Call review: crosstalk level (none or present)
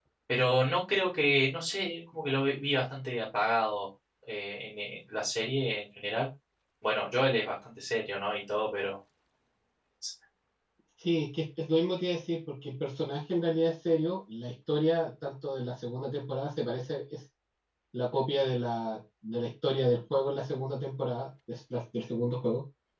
none